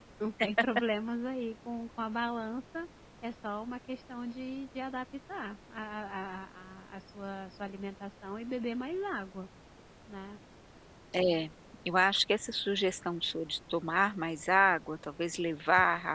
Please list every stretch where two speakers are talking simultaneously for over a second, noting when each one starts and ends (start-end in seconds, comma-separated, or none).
none